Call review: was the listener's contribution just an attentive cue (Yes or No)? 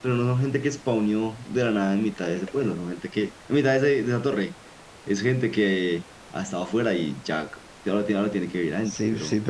No